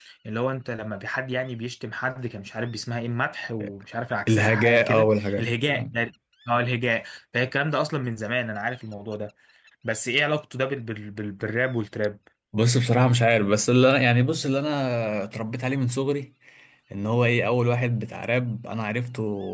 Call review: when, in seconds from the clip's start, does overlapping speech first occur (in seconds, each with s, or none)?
4.3 s